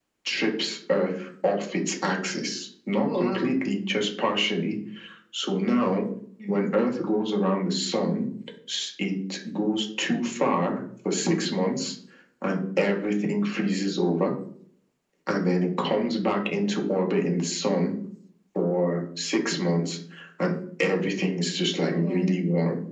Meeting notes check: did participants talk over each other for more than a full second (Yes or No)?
No